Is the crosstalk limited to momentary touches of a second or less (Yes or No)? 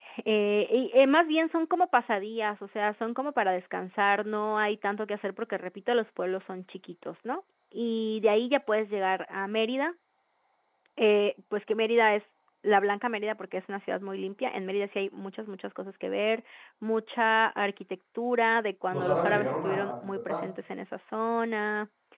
No